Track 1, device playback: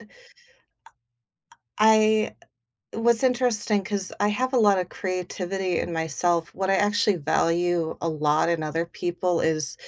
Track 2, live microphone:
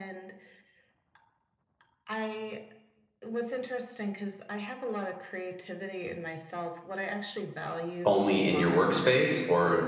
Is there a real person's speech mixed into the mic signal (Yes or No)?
Yes